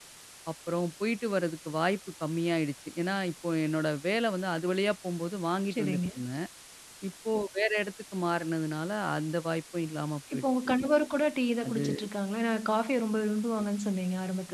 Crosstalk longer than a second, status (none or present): none